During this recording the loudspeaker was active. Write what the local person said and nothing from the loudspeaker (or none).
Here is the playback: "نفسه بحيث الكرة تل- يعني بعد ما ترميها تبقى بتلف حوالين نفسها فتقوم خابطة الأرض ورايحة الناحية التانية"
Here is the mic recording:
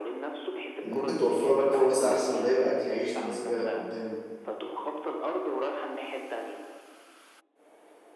اللي ممكن توفر لك فرص احسن وده يبقى اكل عيش بالنسبة لك قدام